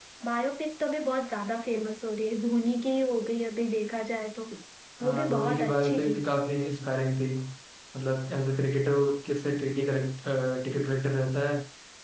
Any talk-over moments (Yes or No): Yes